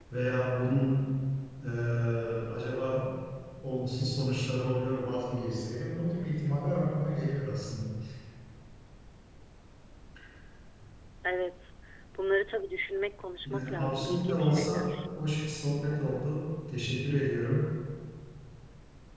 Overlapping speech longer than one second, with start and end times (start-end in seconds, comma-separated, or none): 13.4-15.0